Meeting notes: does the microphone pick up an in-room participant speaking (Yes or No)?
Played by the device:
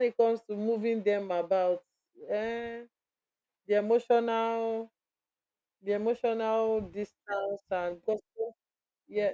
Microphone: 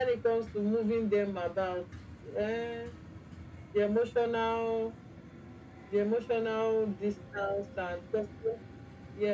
No